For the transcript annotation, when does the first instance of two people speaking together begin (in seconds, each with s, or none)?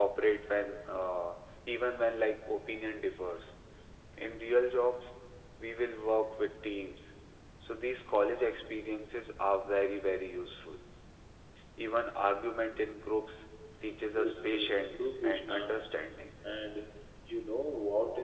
14.1 s